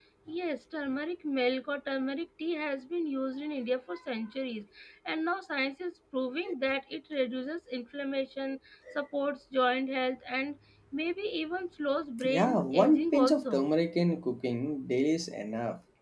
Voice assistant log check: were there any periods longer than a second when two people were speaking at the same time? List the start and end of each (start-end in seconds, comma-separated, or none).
12.2-13.7